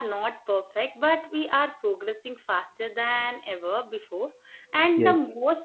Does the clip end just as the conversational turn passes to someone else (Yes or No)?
No